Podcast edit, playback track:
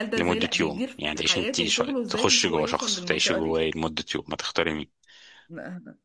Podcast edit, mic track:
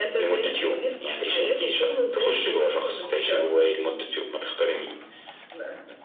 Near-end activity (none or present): none